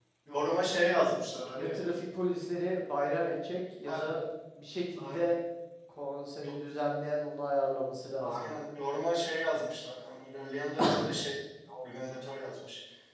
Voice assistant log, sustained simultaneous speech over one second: none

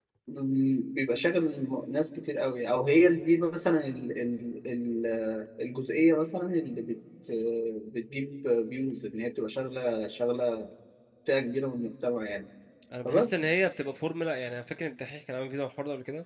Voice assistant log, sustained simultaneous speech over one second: none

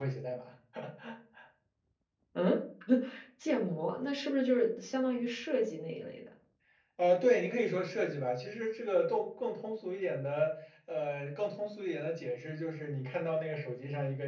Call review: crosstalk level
none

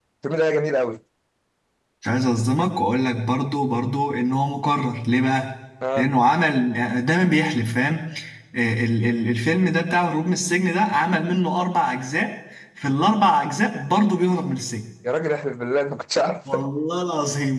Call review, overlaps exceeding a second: none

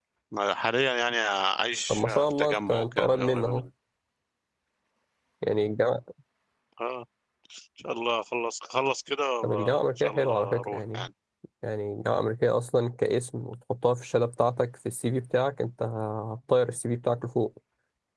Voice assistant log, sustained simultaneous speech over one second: present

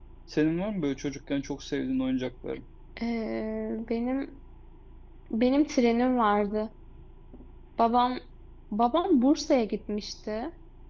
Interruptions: none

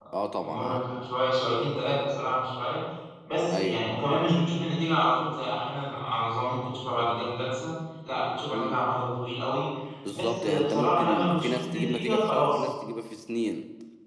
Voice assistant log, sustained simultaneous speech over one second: present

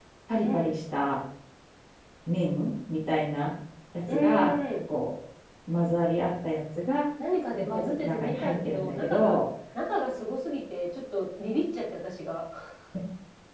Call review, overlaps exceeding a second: present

